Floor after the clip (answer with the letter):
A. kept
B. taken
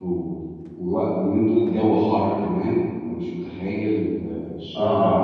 A